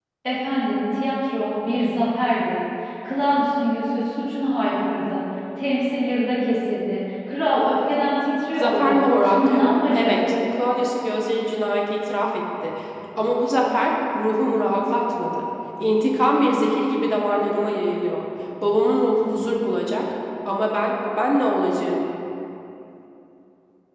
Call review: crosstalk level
present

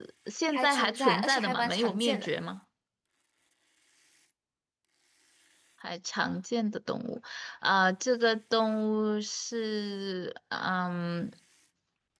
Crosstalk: present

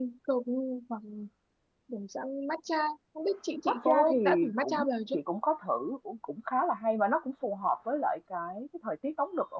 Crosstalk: present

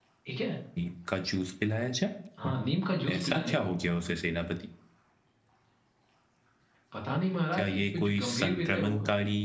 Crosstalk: present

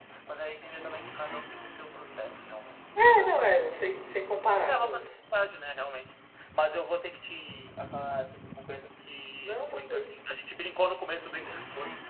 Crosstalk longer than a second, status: present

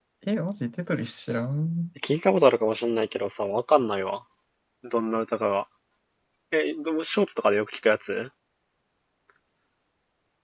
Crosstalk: none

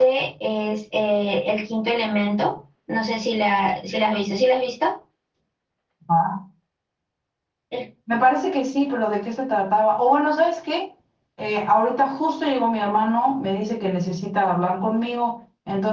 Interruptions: none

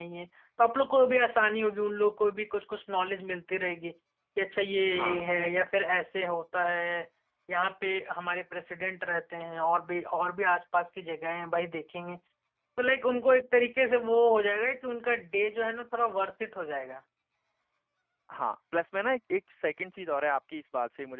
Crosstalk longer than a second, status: none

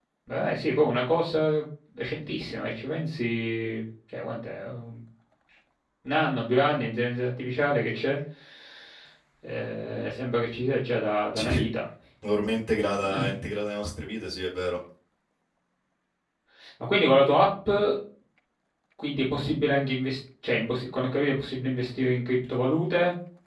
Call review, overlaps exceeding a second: none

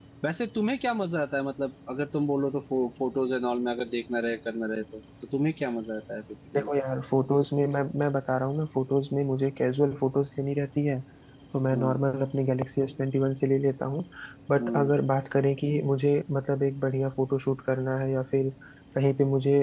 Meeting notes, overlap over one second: none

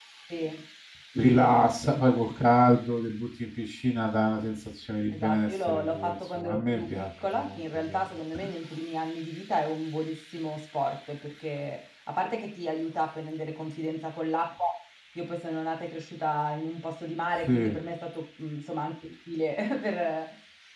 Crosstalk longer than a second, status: present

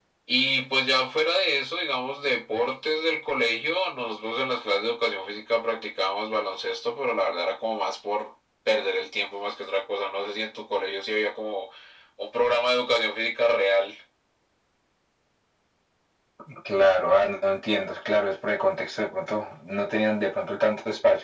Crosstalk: none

